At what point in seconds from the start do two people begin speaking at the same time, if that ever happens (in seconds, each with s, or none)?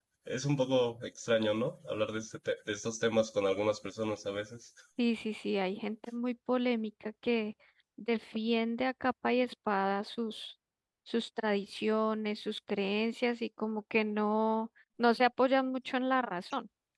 none